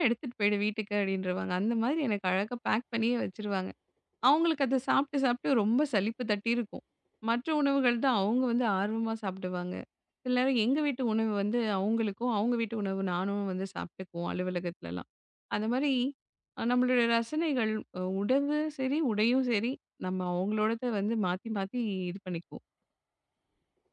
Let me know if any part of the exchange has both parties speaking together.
No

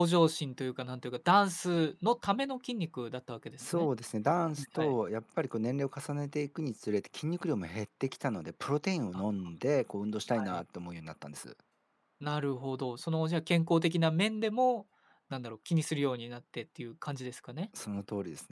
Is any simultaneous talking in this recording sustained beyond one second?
No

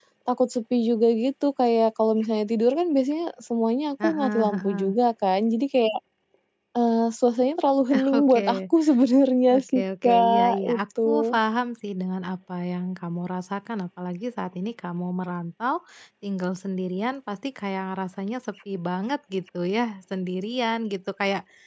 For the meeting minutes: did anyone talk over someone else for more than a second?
Yes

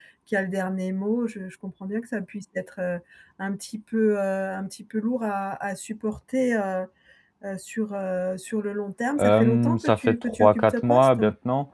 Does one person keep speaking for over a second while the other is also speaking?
Yes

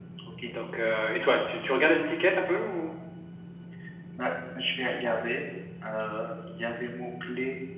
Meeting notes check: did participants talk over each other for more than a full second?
No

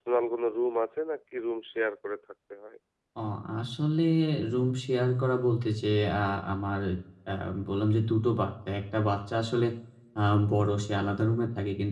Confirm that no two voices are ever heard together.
Yes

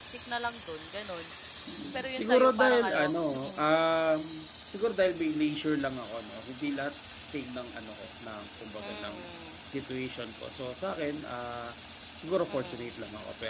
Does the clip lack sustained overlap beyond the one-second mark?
No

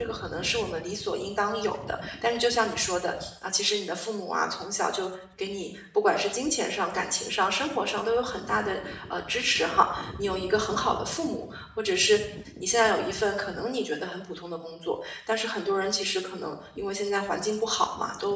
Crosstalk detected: No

